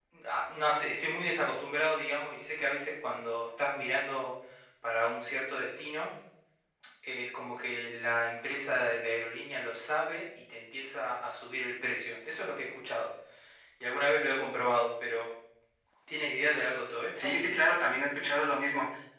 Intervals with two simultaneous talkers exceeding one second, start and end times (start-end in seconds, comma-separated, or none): none